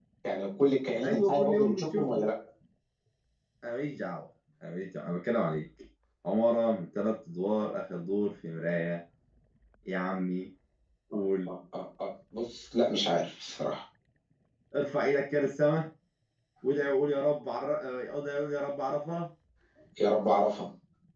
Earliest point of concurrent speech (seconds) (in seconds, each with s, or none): 1.0 s